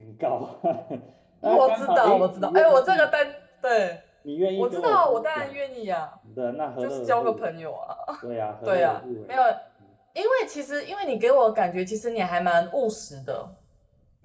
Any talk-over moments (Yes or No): Yes